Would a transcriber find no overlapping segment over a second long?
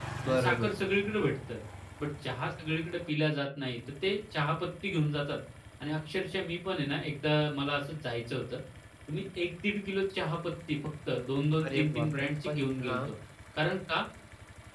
No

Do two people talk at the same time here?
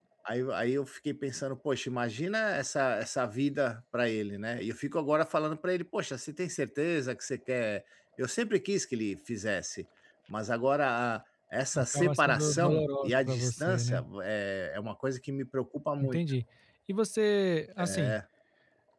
Yes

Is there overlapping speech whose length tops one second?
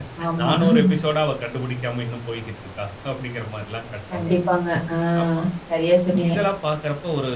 No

